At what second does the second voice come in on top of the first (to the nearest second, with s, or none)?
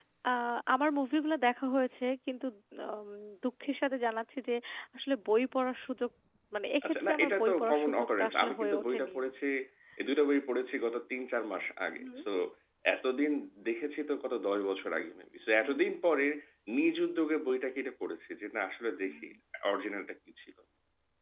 7 s